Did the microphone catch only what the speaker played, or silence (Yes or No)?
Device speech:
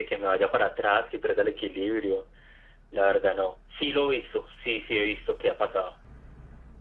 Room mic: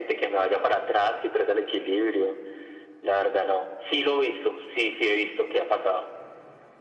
Yes